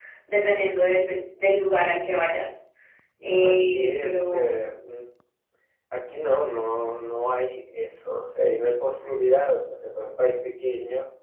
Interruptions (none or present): present